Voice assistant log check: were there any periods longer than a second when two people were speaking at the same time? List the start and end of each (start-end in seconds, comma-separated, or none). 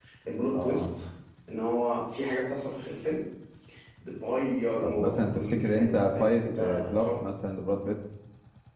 4.8-7.1